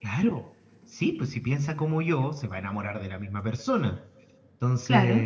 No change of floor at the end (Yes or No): Yes